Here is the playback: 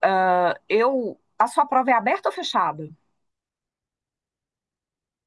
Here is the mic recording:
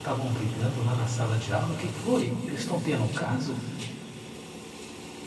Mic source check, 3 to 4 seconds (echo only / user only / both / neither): user only